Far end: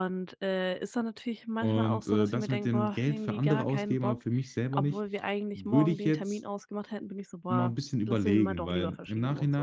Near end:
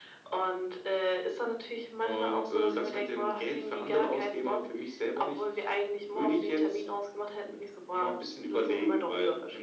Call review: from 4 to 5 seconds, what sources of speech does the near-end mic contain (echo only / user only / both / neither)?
echo only